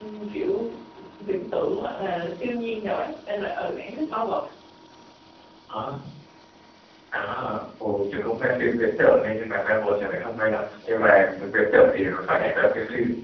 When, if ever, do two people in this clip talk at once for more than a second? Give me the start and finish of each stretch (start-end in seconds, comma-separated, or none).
none